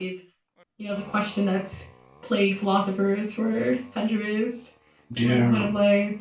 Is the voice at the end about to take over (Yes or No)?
No